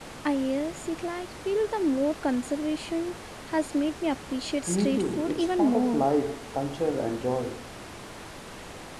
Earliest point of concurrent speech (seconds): 4.7 s

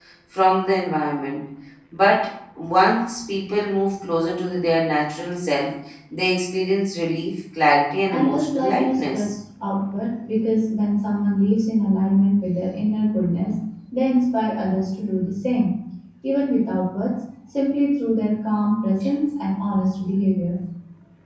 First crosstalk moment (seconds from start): 8.1 s

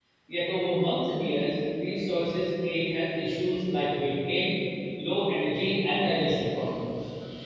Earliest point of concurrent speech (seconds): none

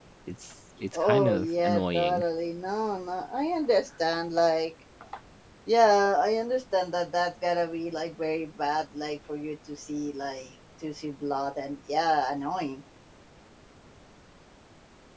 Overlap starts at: 0.9 s

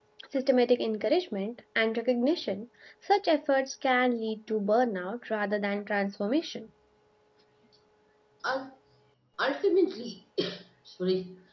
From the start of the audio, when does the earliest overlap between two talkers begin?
none

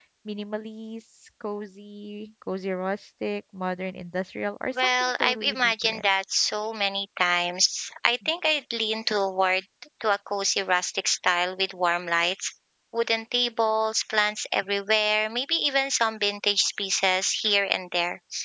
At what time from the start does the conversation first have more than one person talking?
4.8 s

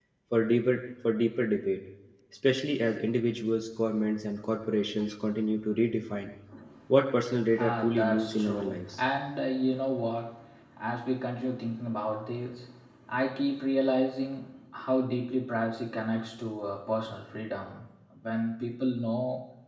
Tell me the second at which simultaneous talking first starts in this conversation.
7.6 s

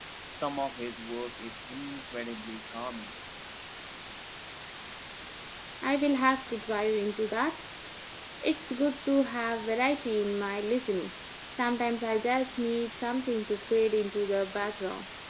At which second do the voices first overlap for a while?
none

